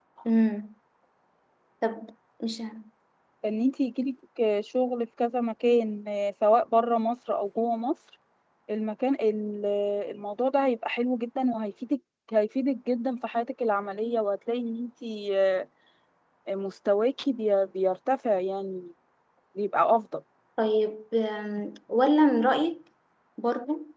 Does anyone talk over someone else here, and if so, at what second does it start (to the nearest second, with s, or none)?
none